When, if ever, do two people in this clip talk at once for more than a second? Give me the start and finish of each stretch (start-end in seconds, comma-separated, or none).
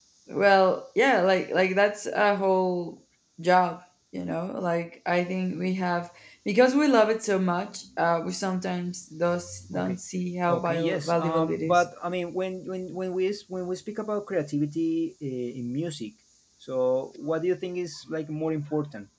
10.5-11.8